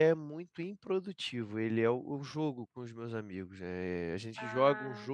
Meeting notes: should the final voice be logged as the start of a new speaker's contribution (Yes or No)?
No